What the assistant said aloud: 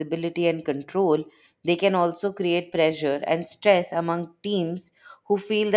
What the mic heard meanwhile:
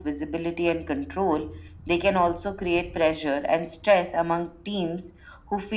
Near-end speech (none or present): none